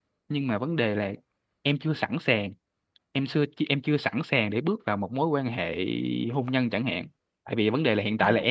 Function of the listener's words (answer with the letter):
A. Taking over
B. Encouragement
B